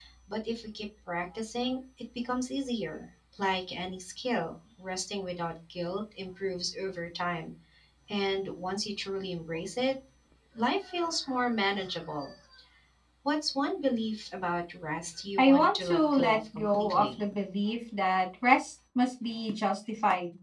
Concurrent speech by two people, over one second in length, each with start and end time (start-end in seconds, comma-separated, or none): 15.4-17.2